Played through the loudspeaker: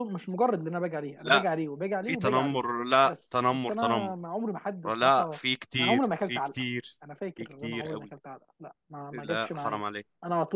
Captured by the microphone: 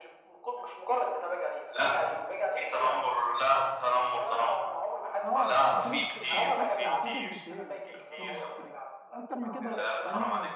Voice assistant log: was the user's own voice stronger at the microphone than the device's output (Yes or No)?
No